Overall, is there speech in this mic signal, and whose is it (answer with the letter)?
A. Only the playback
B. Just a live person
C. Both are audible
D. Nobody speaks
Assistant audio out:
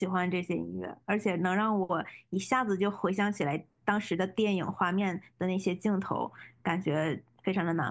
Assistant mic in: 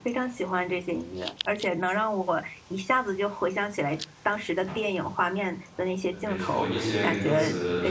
C